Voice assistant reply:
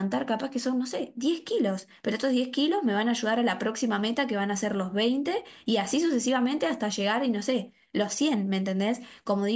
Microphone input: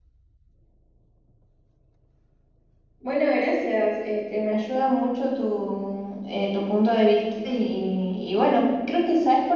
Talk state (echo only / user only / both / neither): user only